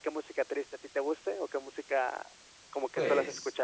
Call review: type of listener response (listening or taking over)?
taking over